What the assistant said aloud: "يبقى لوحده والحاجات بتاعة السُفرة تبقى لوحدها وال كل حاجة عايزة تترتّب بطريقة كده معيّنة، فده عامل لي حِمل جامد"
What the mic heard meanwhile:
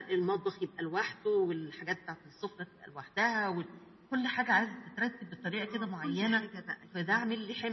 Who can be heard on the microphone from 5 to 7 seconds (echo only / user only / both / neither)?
both